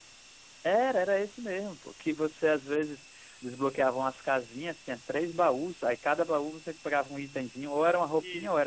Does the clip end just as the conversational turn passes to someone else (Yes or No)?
No